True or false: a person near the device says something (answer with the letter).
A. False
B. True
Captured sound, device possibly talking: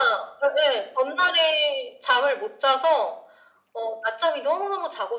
A